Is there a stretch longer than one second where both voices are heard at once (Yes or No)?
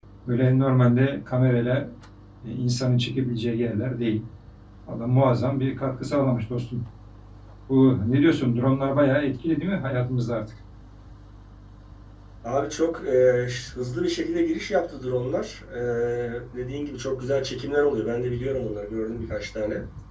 No